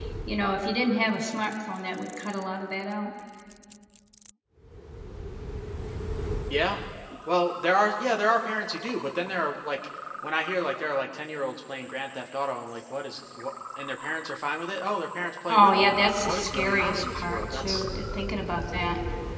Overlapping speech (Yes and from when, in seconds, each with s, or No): Yes, from 15.5 s